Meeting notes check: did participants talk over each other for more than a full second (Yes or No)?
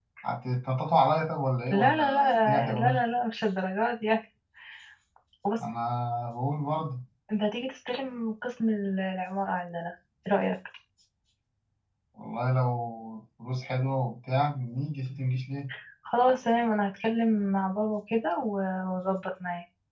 Yes